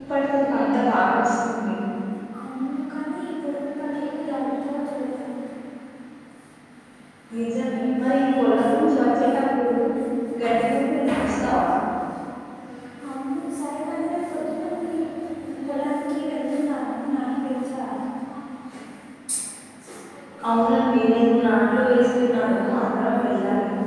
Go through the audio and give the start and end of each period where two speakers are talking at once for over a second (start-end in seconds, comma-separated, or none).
none